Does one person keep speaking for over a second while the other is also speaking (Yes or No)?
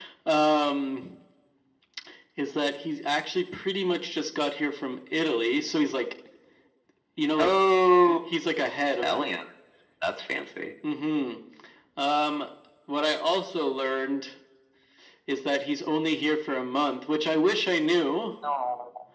No